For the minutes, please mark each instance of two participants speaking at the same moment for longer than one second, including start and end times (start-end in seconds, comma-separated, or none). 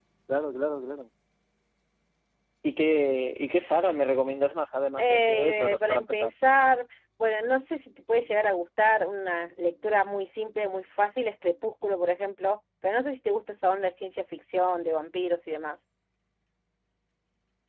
5.0-6.3